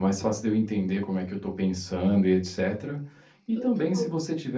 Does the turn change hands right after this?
No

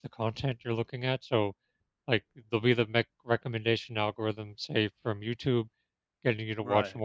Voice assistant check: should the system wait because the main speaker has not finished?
Yes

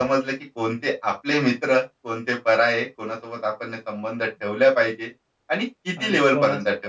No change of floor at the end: No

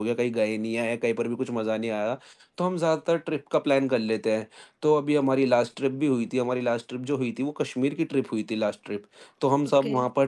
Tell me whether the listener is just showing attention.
Yes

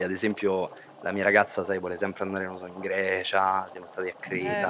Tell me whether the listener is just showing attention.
No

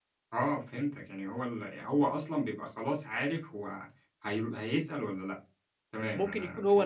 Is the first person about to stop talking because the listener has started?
Yes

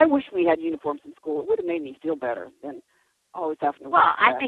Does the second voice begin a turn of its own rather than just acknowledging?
Yes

